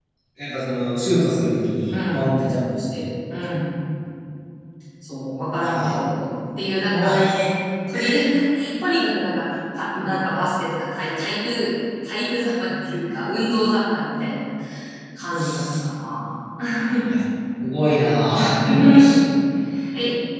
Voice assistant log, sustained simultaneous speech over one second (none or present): none